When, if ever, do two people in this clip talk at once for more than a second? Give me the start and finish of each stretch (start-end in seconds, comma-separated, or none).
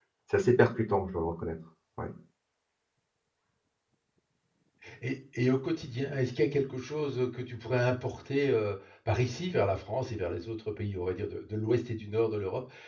none